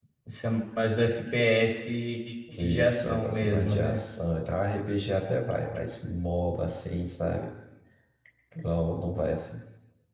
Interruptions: present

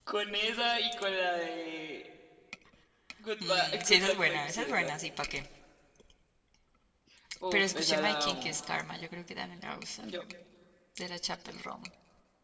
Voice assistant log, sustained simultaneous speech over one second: present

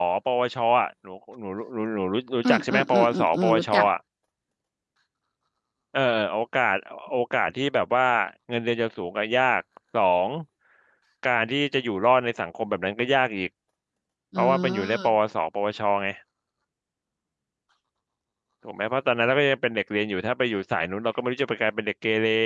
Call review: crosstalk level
present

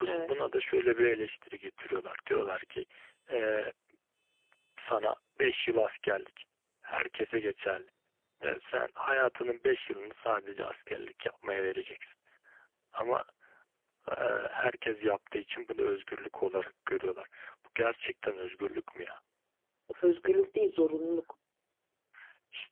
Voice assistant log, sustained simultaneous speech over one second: none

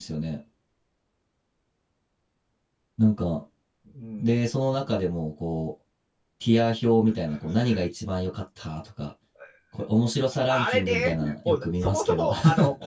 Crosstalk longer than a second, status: present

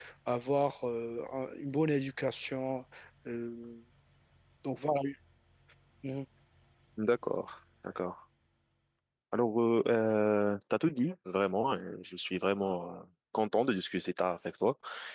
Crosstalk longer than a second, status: none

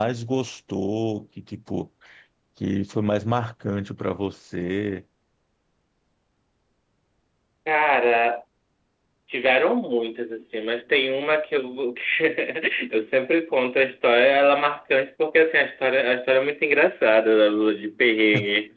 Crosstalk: none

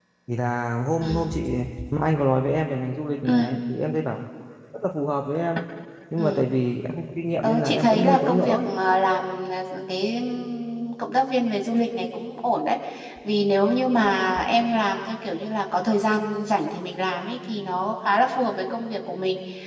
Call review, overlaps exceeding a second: present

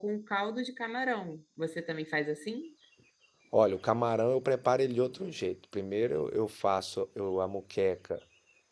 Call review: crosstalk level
none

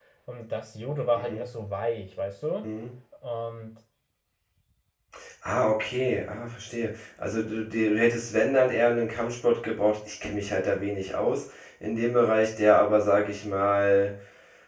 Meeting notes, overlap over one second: none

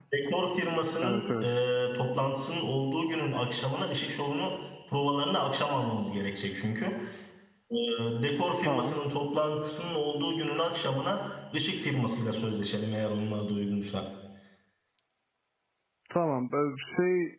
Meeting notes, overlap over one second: none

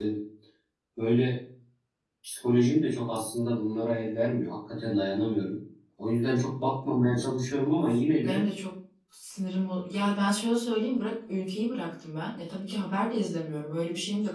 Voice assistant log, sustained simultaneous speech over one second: none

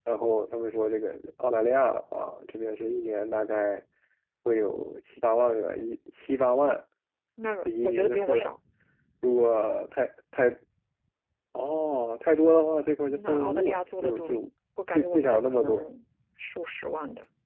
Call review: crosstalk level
present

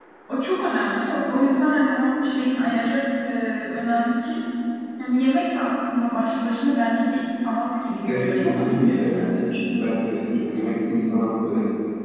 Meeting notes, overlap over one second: present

